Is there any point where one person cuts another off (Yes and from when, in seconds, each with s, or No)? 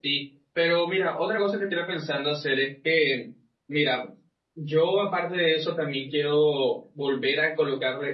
No